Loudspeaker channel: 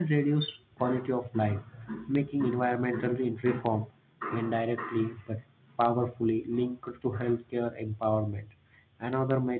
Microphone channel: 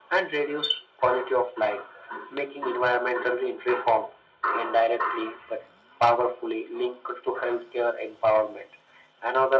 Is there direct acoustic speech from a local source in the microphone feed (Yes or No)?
No